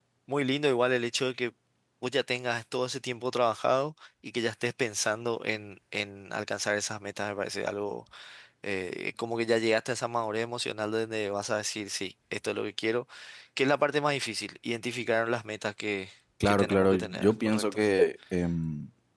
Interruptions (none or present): present